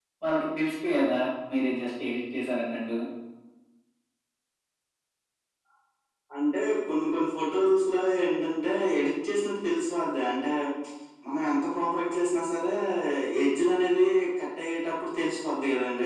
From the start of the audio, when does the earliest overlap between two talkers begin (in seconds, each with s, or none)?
none